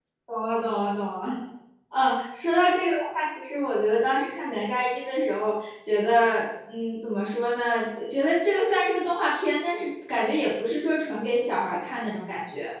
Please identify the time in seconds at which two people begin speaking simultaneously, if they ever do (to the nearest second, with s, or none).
none